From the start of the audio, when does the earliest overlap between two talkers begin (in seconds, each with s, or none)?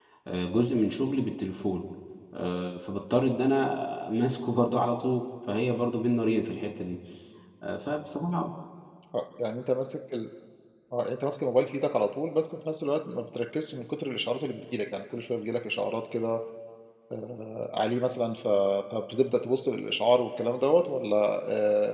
none